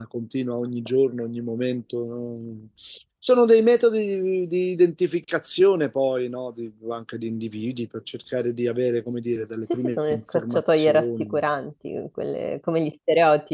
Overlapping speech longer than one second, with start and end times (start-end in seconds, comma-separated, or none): 9.7-11.4